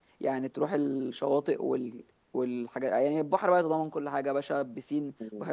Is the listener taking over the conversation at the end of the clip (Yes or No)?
No